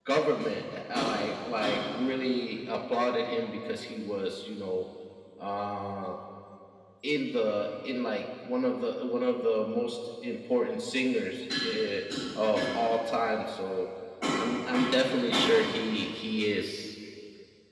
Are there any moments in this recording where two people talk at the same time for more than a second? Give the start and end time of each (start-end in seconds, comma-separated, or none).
none